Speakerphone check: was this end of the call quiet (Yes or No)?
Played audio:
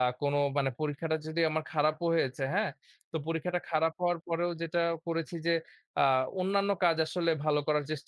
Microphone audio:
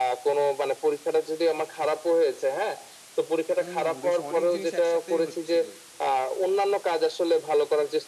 No